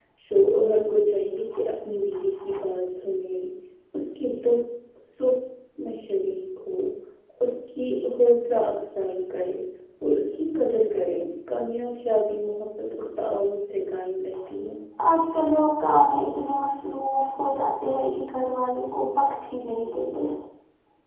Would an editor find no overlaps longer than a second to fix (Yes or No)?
Yes